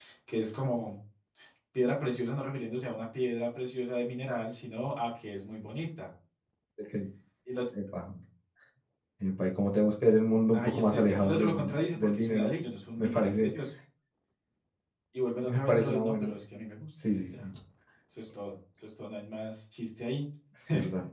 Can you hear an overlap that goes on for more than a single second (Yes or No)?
Yes